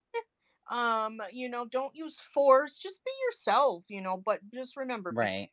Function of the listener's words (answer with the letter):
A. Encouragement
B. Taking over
A